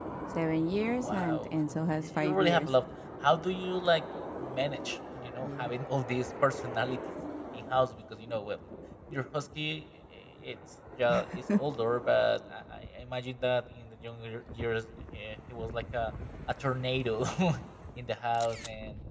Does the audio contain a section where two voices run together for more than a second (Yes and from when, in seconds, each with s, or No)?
Yes, from 1.0 s